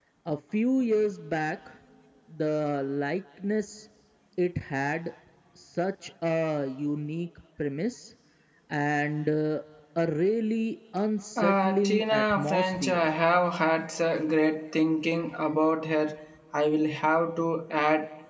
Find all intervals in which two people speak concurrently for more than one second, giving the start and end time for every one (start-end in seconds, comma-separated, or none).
11.4-13.0